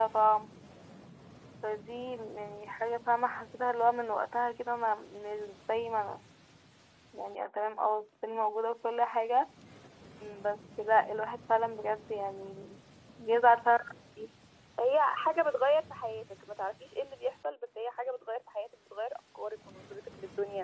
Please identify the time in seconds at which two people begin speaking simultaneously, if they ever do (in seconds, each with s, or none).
none